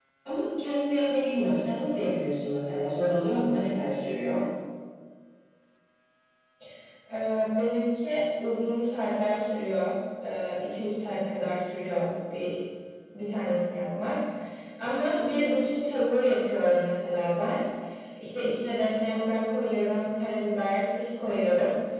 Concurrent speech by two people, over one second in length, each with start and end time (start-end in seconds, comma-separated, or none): none